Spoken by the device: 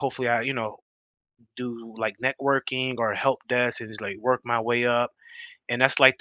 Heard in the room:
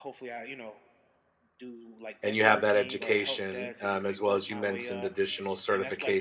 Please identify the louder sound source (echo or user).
user